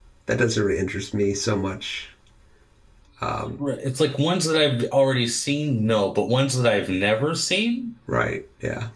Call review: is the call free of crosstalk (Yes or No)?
Yes